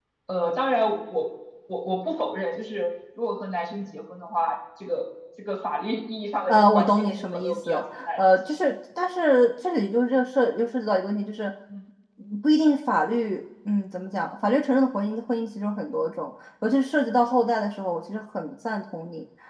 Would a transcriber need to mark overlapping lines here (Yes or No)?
Yes